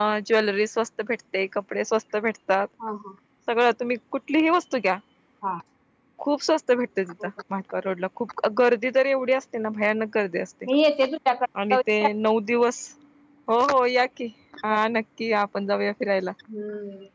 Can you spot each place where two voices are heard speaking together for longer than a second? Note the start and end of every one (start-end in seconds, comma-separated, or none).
none